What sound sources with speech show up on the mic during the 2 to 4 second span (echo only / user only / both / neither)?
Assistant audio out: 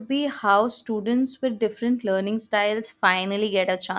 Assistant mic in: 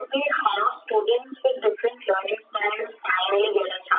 echo only